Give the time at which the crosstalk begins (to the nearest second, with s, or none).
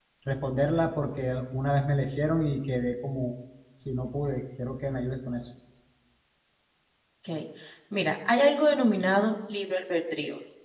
none